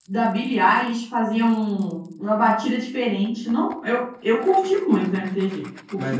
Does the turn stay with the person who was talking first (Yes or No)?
No